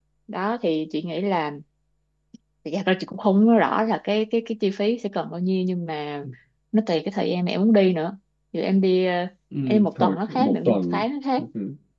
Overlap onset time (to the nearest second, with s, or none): 10 s